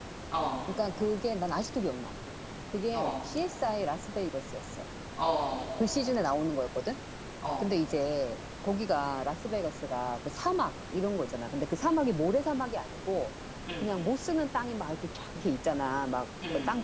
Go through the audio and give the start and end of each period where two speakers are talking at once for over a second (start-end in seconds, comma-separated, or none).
none